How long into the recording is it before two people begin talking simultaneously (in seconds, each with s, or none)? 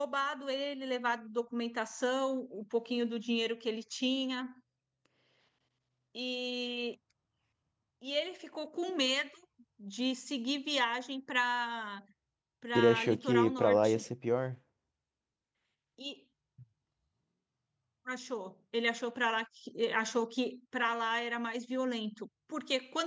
12.8 s